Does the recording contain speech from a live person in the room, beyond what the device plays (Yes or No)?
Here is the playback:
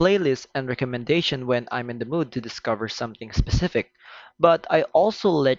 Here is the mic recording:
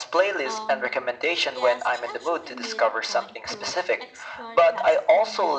Yes